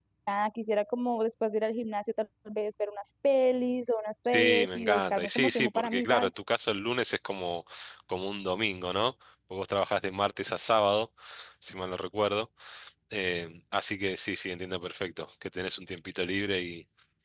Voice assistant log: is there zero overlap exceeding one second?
No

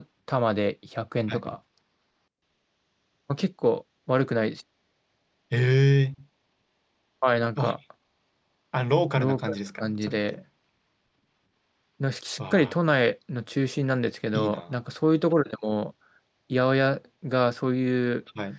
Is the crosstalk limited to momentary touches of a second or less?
No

